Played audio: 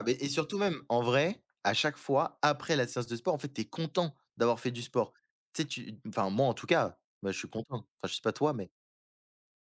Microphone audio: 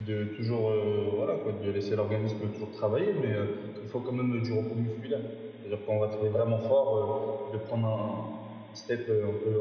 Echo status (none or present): none